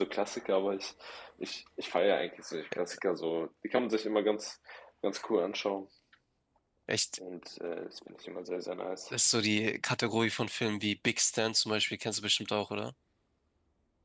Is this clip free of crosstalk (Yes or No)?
Yes